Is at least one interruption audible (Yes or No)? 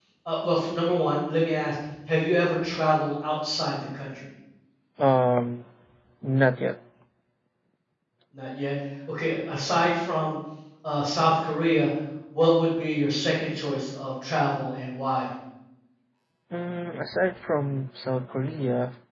No